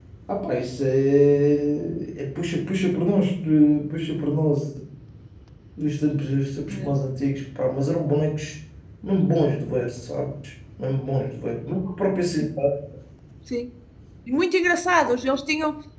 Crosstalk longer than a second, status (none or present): none